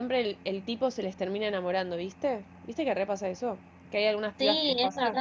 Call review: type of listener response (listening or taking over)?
taking over